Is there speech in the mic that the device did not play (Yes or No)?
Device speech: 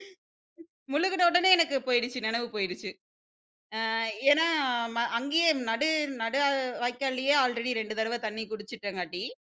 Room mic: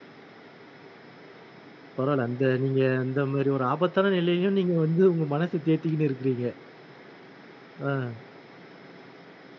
Yes